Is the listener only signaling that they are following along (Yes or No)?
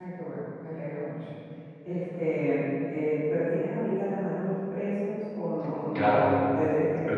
No